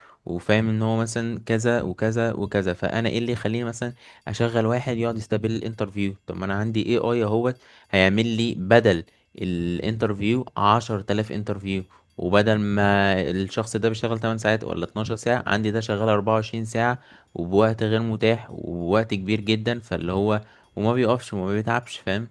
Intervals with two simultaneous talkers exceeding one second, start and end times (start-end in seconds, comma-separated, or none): none